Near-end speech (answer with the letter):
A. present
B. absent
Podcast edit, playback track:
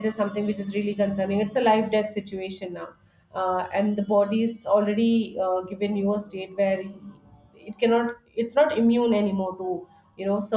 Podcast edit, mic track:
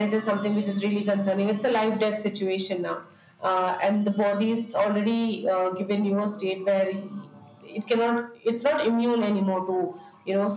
B